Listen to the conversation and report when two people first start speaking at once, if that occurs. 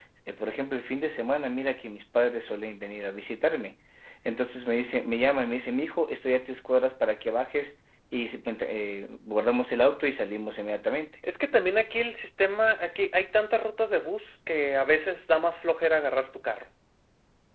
none

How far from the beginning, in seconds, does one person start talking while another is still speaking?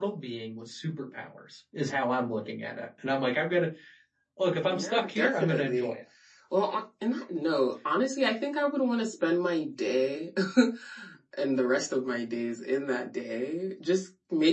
4.6 s

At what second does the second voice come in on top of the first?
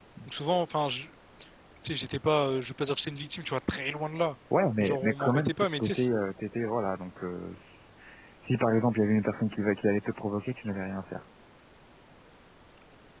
4.8 s

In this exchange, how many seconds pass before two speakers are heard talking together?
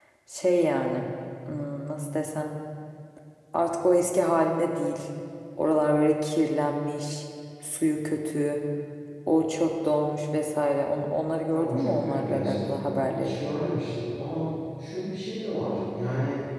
11.5 s

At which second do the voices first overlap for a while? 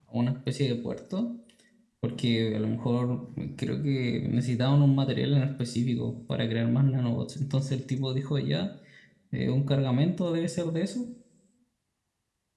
none

